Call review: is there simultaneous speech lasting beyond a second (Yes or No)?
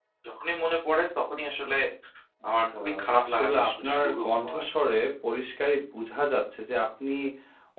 Yes